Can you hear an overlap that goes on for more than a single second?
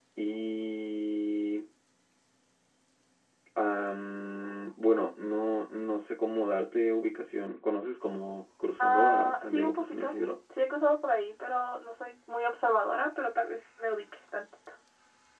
Yes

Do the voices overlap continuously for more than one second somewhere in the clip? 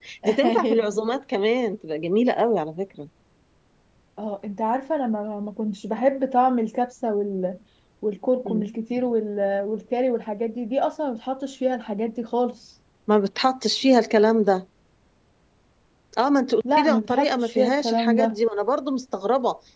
Yes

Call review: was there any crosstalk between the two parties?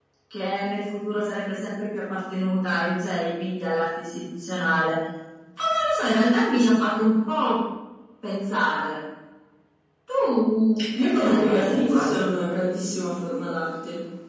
Yes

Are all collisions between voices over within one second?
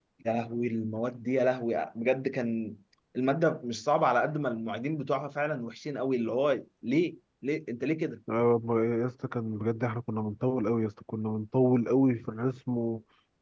Yes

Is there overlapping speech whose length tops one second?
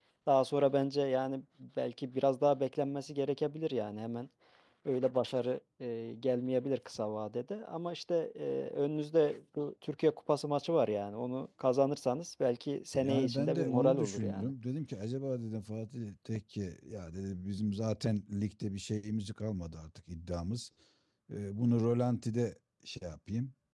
Yes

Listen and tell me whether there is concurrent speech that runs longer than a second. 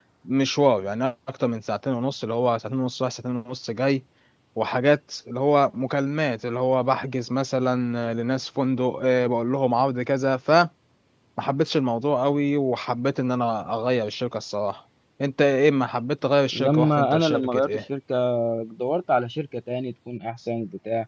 Yes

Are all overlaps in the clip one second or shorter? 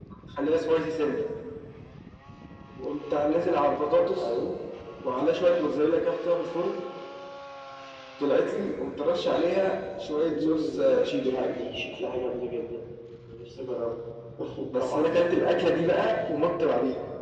No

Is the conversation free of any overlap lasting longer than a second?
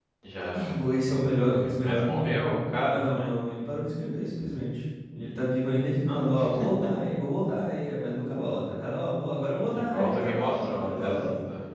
No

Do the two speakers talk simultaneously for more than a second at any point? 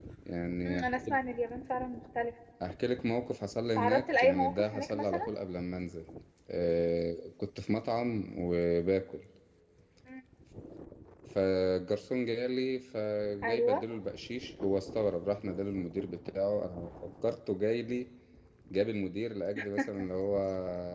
Yes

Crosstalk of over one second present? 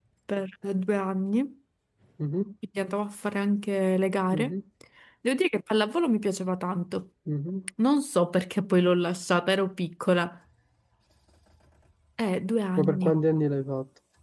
No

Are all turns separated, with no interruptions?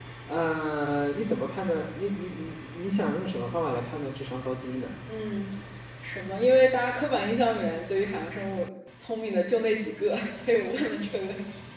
Yes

